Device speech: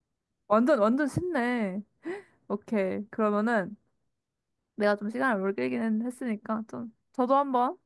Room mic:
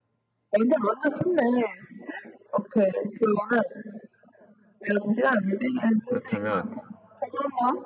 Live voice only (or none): 그렇다면,